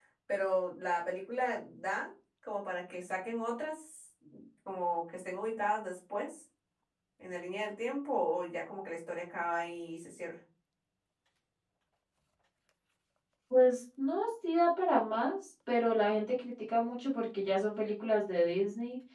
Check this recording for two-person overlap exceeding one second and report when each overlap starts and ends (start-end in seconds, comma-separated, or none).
none